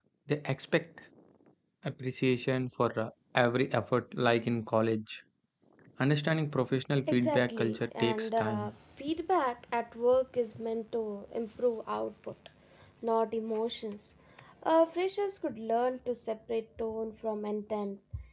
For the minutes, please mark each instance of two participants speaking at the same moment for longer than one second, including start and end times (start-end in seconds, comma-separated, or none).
7.1-8.7